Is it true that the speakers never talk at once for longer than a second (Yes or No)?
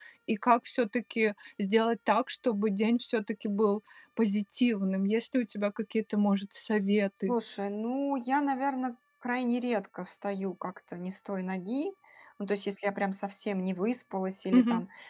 Yes